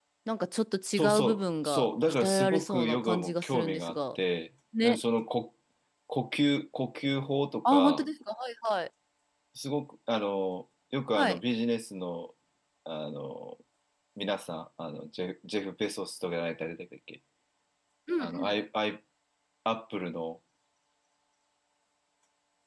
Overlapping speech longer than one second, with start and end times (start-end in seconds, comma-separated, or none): 1.0-4.0